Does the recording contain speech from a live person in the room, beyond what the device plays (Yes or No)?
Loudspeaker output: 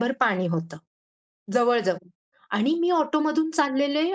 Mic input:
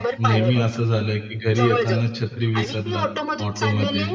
Yes